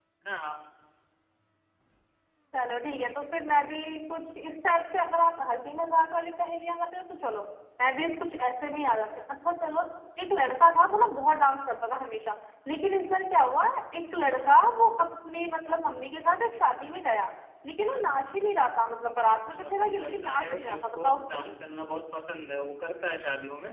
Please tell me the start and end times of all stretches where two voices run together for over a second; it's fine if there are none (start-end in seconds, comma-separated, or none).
19.5-21.5